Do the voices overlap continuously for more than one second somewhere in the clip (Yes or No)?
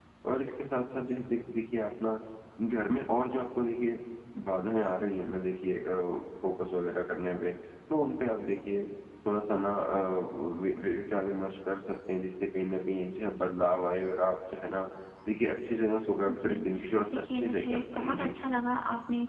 Yes